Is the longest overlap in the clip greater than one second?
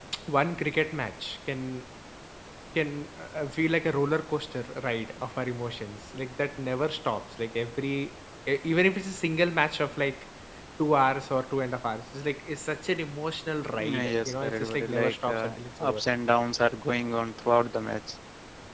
Yes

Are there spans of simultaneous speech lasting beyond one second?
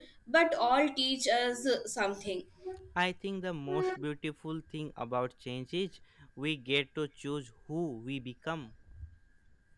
No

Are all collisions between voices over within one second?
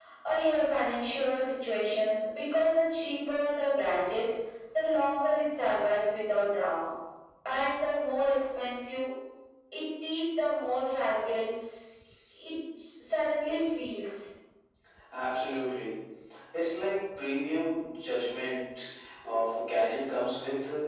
Yes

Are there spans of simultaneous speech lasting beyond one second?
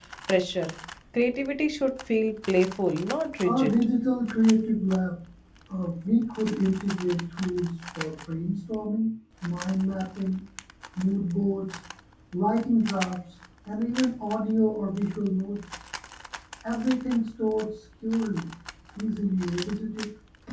No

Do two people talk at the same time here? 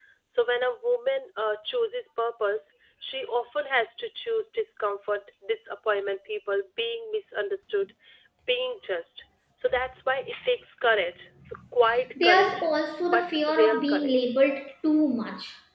Yes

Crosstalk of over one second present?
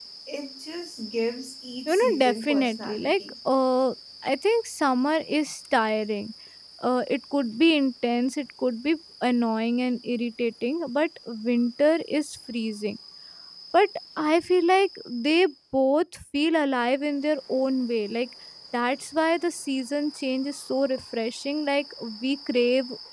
Yes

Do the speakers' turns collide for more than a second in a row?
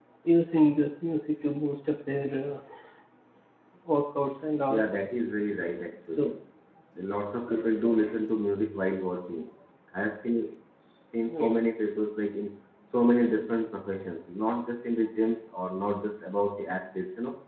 No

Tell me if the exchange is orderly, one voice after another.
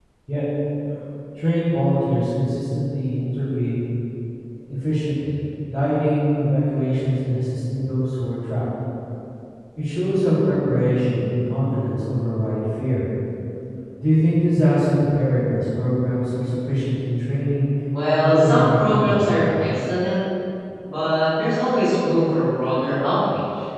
No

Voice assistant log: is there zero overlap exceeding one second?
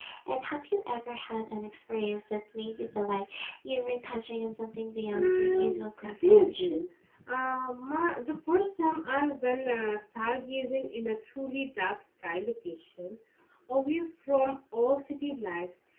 No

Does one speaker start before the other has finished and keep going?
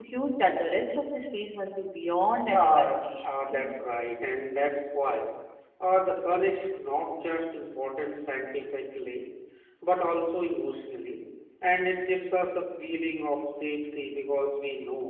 Yes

